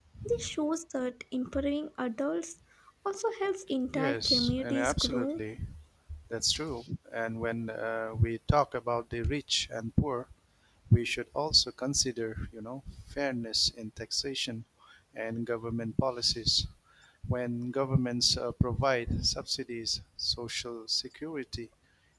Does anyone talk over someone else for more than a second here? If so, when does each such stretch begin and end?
3.9-5.4

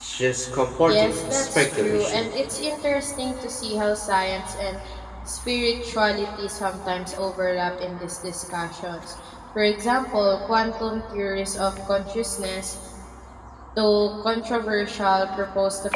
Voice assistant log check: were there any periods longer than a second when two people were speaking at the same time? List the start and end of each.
0.9-2.3

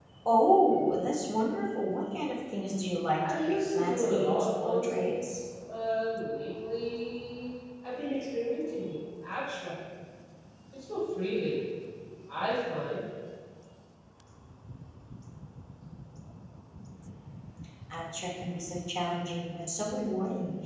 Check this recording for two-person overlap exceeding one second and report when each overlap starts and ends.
3.2-5.4

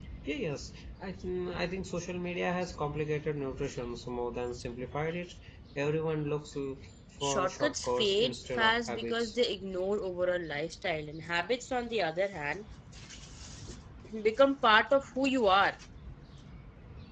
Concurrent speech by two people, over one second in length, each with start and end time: 7.2-9.3

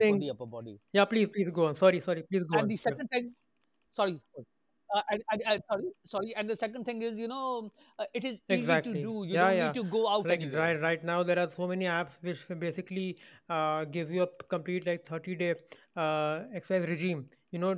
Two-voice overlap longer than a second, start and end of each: 8.5-9.8

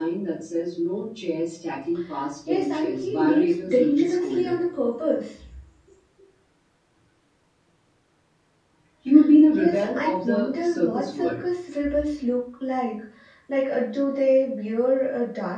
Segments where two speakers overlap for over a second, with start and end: 2.5-4.5, 9.5-11.4

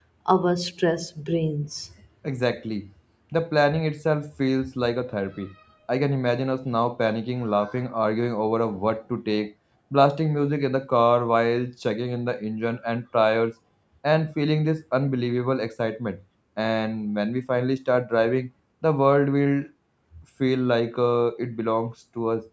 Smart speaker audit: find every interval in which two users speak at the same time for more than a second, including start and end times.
none

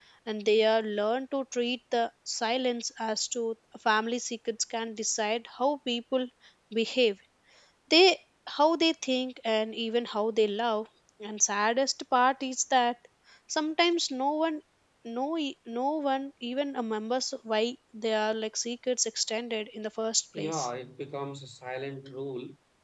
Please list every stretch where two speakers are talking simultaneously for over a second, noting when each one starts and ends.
none

